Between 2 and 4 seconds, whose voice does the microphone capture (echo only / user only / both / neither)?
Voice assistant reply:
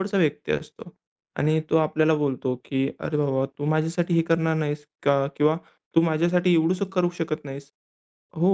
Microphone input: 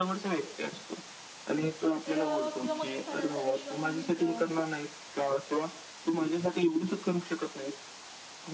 both